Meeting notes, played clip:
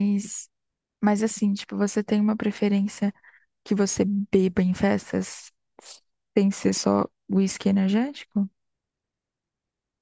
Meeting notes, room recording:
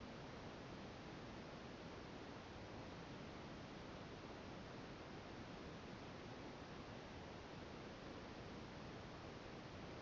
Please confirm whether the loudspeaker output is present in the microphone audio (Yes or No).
No